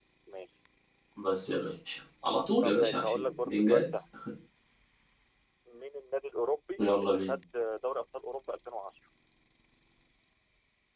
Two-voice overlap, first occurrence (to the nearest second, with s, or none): 3 s